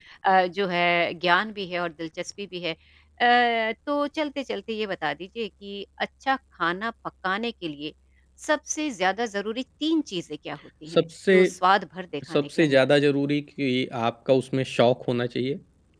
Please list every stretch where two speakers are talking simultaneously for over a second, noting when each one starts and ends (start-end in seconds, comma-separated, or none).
none